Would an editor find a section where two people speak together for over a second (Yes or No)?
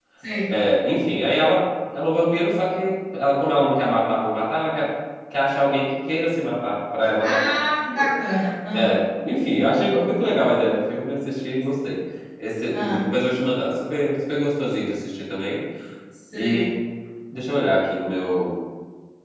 No